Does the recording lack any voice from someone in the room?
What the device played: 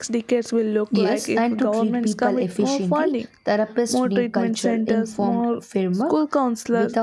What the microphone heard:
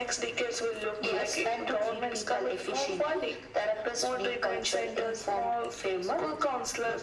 Yes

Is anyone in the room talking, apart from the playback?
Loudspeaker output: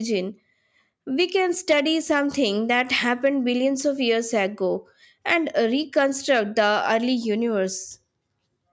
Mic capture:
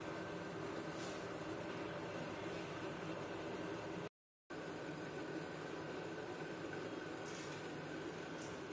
No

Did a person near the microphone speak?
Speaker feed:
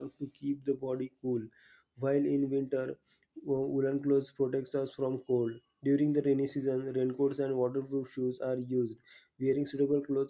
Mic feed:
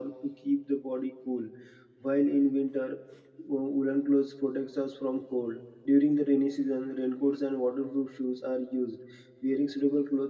No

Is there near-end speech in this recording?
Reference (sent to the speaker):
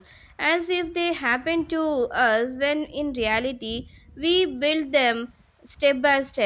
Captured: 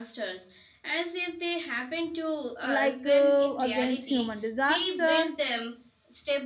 Yes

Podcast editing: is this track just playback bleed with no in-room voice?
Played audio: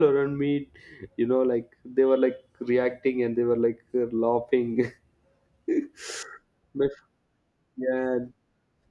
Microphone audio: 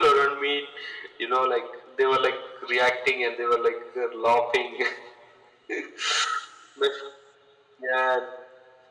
Yes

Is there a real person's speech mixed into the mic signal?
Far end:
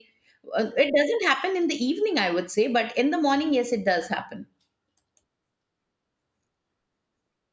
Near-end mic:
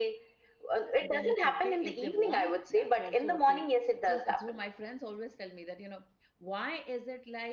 Yes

